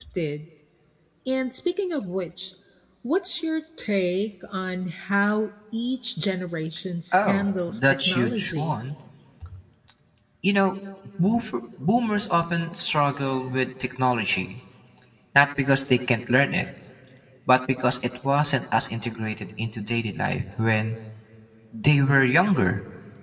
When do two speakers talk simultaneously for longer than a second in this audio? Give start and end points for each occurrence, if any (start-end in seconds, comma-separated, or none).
7.1-8.8